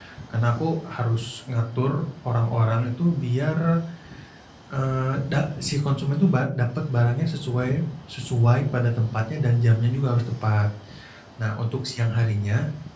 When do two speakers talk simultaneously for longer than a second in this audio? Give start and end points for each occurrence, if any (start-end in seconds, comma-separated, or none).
none